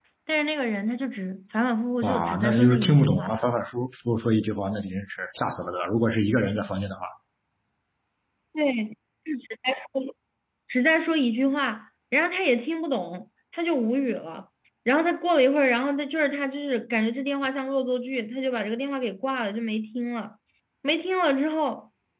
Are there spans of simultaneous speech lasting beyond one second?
Yes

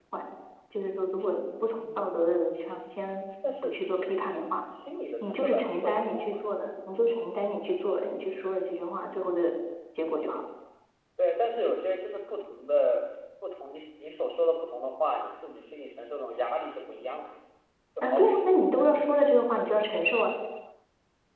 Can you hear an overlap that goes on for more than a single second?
Yes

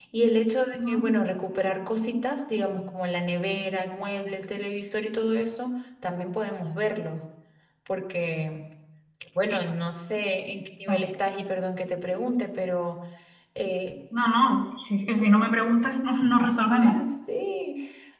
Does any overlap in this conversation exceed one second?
No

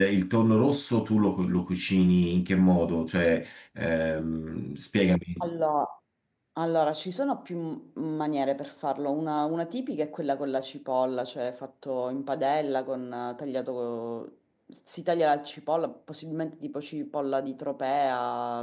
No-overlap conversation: Yes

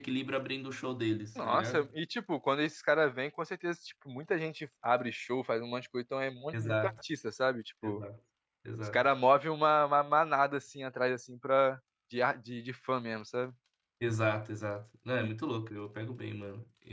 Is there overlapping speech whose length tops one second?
No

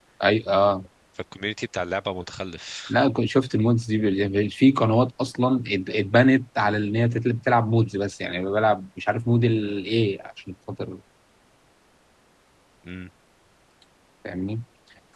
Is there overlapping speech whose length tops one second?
No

